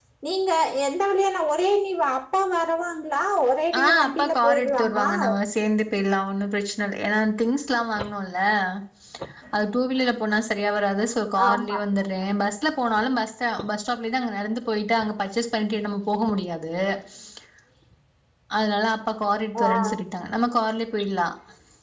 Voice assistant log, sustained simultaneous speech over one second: present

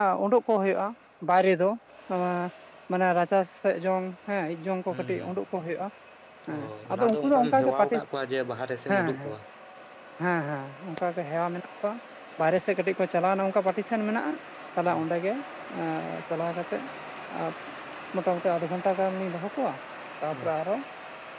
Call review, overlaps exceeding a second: present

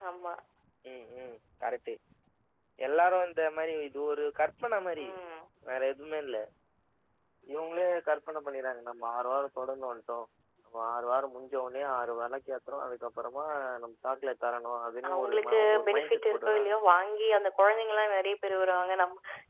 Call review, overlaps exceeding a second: present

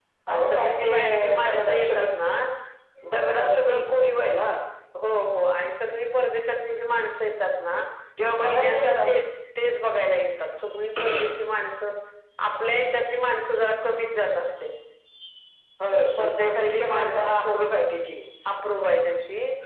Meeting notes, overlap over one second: present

